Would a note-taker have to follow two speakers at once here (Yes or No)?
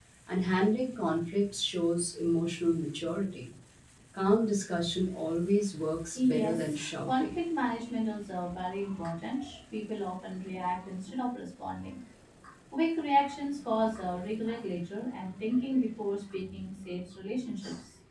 Yes